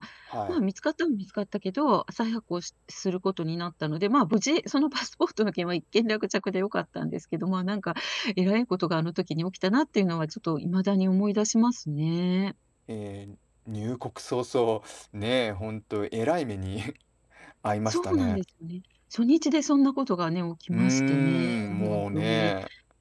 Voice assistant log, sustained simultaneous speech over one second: present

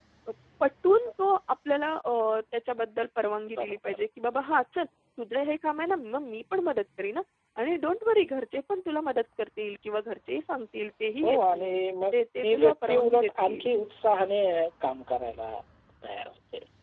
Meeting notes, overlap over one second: present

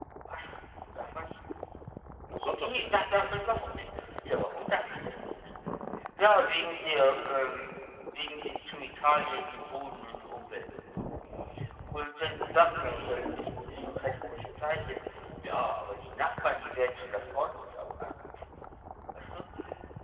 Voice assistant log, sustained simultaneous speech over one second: present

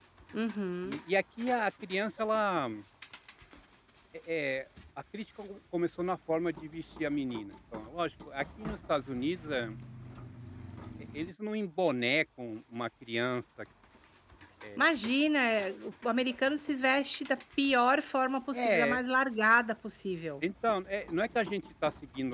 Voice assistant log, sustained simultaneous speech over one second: none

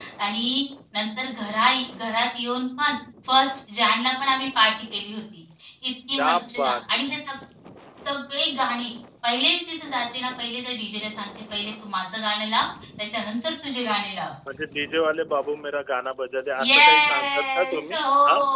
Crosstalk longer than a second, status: present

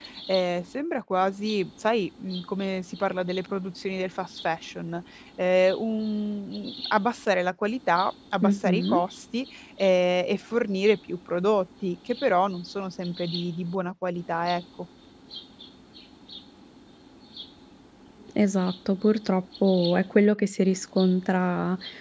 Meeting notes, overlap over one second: none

